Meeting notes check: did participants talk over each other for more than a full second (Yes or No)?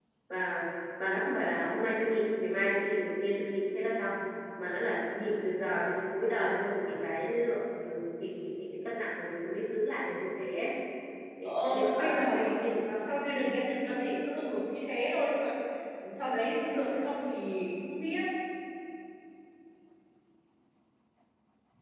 Yes